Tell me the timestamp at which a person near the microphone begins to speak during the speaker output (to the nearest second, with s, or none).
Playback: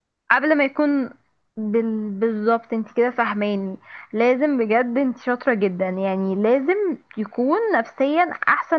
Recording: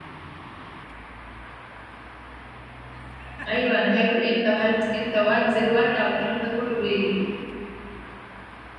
3 s